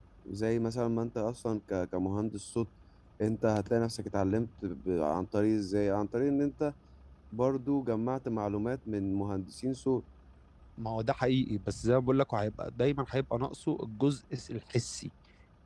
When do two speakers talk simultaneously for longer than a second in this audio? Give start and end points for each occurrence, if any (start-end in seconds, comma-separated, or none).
none